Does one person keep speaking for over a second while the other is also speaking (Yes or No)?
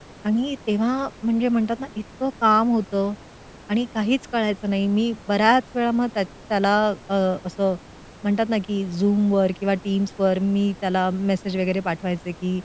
No